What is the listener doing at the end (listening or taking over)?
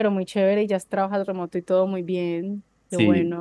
taking over